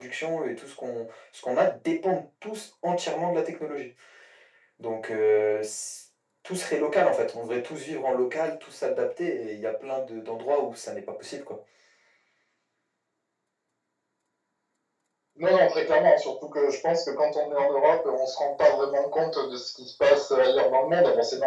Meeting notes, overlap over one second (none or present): none